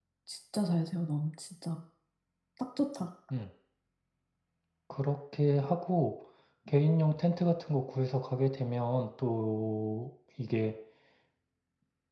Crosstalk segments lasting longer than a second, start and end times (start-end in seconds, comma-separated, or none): none